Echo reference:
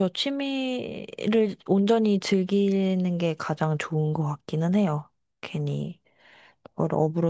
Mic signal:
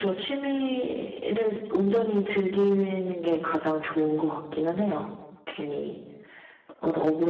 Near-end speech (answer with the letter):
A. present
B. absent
B